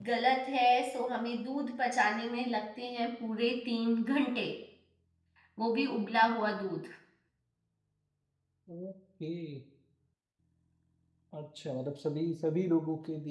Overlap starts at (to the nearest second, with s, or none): none